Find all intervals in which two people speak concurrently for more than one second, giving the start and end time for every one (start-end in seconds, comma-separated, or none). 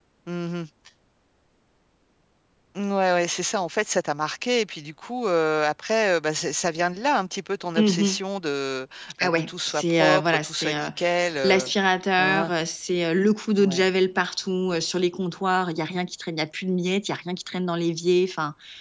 9.2-10.9